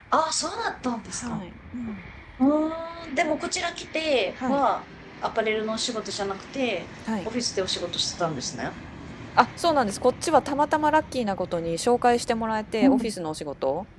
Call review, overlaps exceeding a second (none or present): none